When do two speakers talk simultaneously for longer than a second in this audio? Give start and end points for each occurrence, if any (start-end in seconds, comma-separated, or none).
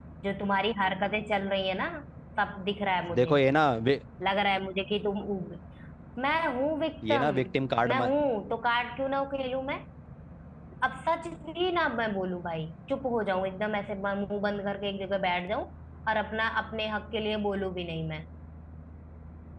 none